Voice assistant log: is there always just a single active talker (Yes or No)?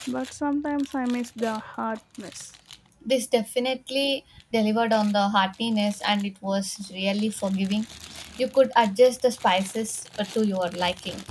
Yes